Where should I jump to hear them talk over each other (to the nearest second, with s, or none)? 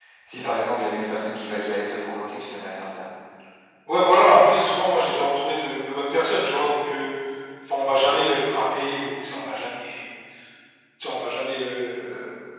none